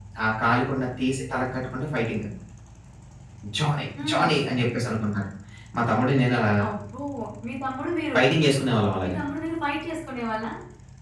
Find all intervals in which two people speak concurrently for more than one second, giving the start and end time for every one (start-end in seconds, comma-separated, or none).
none